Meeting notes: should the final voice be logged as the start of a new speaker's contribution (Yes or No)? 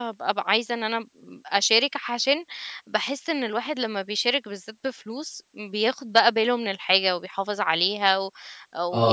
Yes